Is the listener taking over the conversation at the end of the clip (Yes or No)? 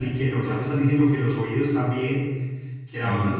No